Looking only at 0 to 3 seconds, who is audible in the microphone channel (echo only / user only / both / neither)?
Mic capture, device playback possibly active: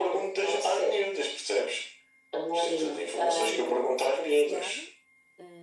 echo only